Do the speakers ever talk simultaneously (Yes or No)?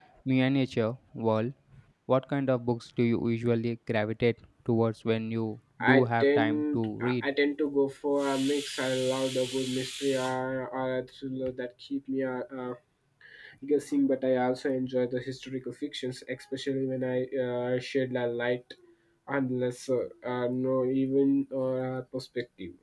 Yes